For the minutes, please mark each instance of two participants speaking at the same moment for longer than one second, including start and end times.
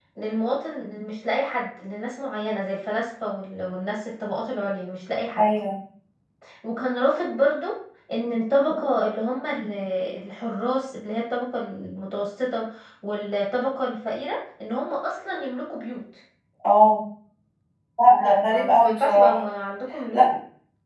18.0-19.4

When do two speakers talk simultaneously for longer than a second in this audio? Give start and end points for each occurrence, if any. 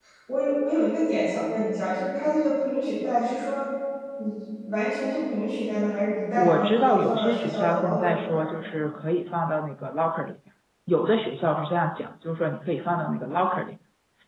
6.4-8.5

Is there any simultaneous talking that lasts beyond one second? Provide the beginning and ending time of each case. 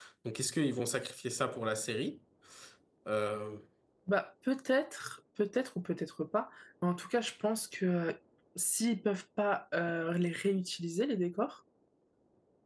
none

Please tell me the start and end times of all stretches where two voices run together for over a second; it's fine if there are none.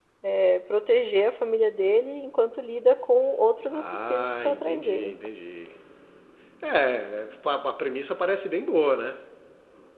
3.7-5.1

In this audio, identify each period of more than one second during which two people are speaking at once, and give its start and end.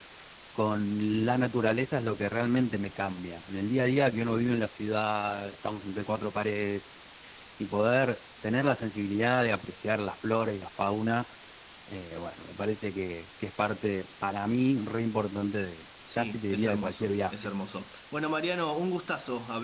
16.1-17.4

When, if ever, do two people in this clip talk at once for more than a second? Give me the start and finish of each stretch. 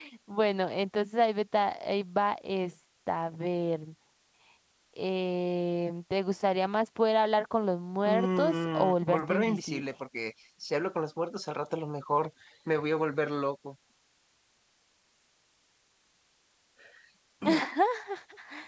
8.1-9.8

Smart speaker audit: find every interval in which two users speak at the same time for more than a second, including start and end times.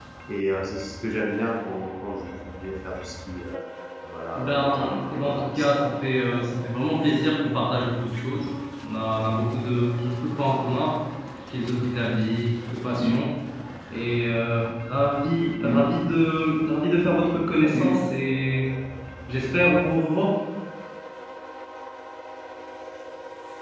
4.3-5.8

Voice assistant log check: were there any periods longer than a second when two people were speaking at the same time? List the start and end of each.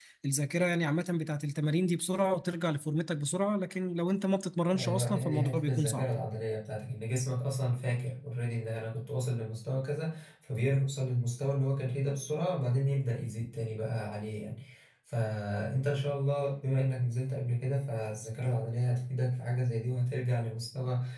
4.8-6.1

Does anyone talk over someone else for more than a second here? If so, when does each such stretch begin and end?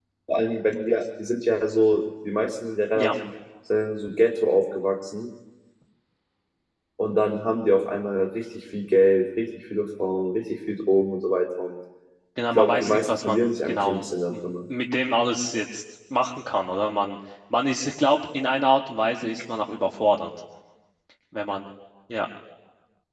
12.5-14.1

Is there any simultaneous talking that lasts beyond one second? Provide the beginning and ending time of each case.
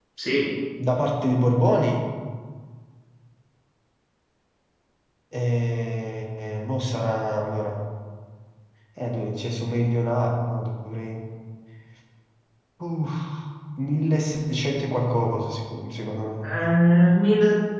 none

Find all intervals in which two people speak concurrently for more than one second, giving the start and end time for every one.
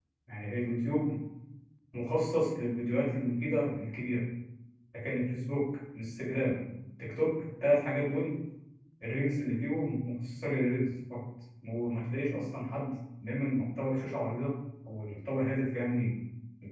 none

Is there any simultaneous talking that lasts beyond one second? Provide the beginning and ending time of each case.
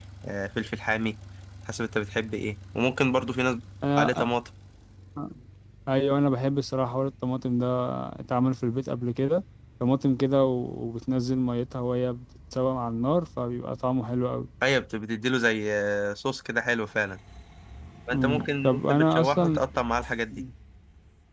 18.1-19.6

